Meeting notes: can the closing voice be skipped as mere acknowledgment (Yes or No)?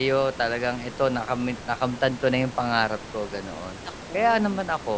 Yes